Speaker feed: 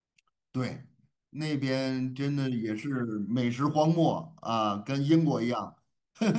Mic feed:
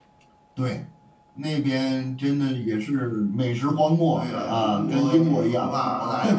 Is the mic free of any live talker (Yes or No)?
No